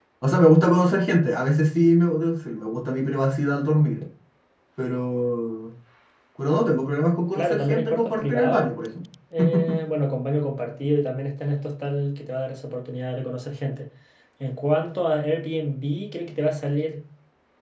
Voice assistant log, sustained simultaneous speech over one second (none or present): present